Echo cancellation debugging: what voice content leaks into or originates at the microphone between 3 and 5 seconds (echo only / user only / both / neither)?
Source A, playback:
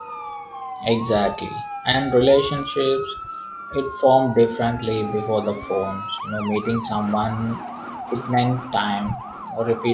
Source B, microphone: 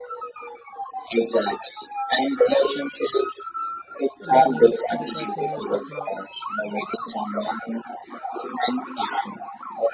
both